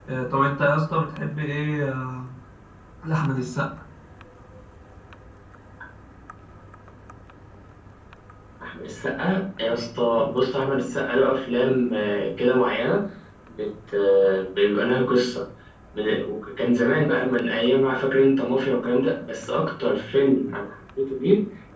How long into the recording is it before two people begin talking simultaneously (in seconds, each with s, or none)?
none